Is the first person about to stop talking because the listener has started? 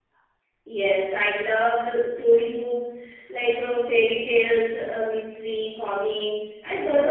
No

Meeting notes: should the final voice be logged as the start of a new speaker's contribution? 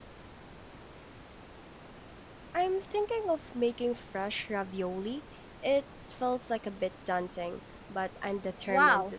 Yes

